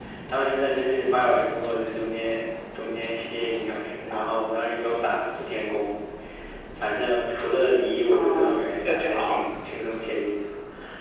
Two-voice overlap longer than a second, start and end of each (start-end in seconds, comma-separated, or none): 8.1-9.5